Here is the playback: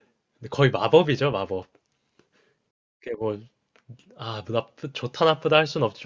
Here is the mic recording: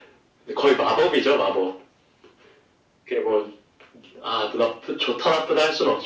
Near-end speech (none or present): none